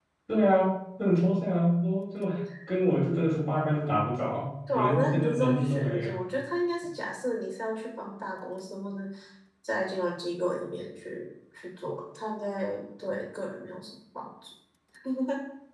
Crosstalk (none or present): present